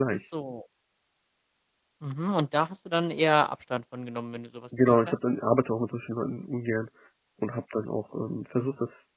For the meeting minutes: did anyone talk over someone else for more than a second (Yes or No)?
No